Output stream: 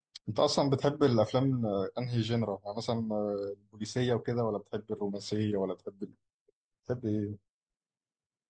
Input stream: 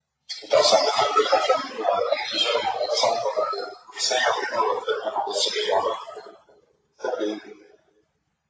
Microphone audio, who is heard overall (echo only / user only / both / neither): echo only